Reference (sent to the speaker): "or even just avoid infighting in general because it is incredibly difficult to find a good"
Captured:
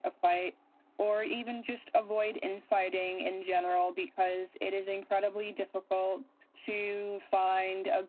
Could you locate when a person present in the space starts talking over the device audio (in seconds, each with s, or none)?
none